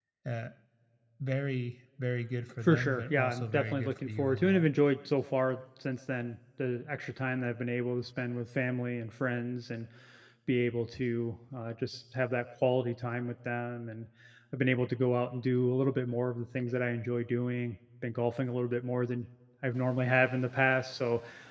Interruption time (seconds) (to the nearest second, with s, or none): 3 s